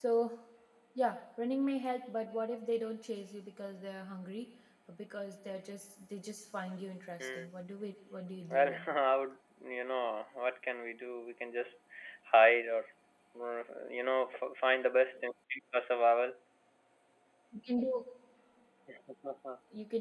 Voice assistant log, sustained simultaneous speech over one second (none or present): none